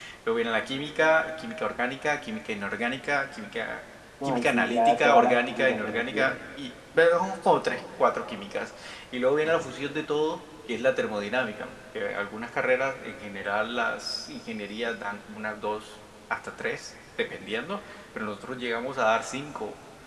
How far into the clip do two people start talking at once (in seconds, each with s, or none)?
4.2 s